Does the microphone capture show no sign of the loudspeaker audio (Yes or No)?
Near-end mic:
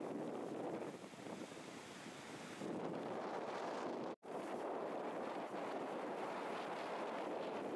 Yes